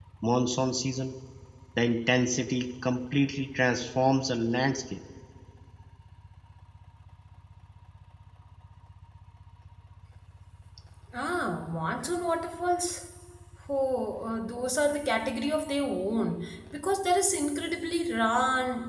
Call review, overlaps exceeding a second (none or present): none